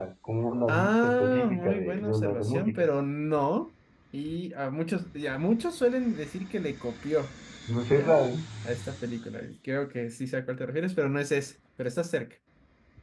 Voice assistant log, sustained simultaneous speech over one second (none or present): present